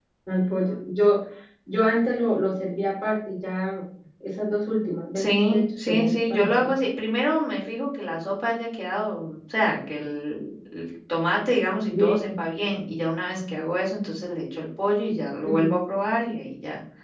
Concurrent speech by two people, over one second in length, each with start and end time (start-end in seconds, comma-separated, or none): 5.2-6.7